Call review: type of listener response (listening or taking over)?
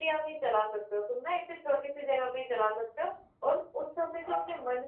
listening